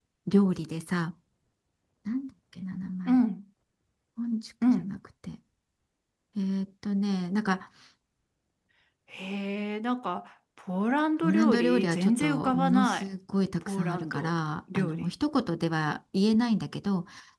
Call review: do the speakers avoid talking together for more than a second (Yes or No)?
No